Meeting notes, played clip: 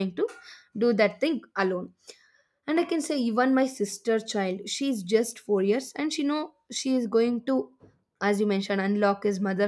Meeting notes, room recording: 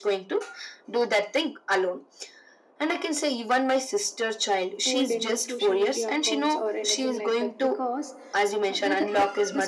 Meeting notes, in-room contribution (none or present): present